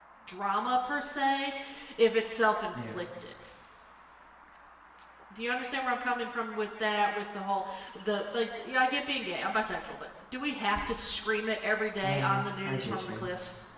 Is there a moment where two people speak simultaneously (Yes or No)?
Yes